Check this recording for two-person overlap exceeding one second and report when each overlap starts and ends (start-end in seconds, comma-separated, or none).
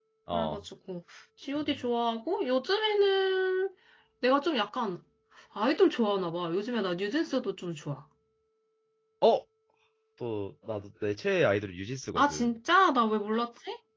none